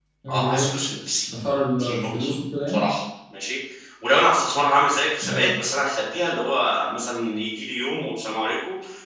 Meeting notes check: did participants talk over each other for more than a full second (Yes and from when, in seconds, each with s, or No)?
No